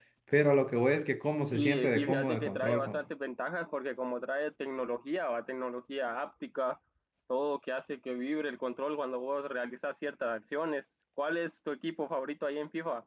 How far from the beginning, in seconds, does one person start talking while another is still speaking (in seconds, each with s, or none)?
1.5 s